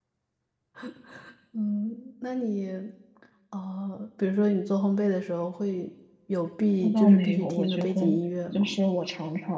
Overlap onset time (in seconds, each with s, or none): 6.8 s